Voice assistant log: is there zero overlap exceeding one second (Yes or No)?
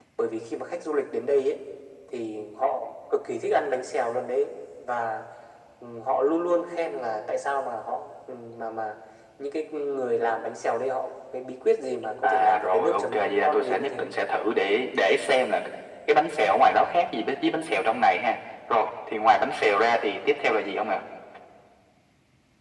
No